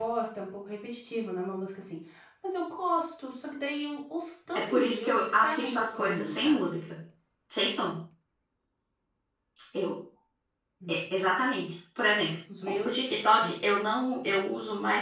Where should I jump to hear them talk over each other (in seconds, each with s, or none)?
4.5 s